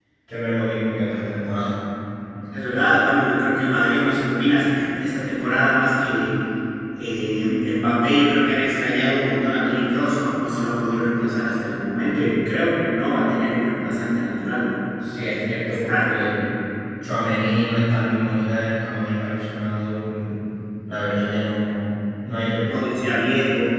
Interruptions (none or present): present